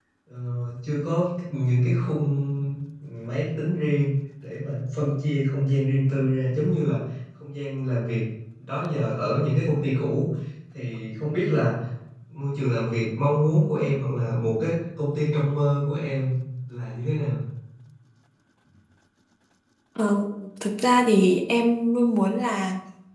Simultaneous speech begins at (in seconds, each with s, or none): none